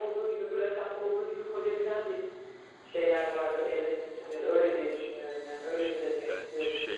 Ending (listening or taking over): taking over